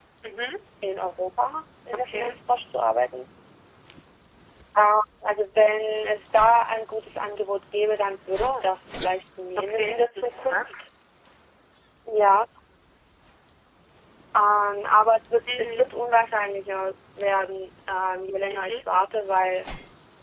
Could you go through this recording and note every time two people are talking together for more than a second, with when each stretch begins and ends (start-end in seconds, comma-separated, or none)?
9.6-10.8